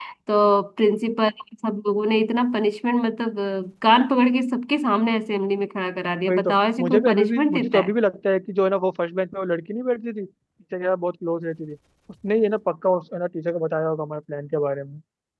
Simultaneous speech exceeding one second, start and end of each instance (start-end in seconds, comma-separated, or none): 6.3-7.9